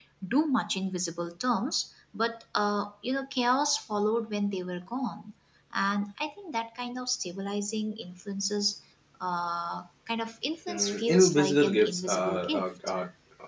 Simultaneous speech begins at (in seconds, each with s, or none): 10.7 s